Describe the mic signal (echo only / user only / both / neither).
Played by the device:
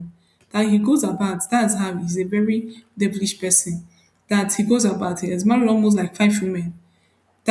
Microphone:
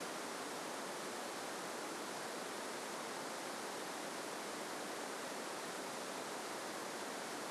neither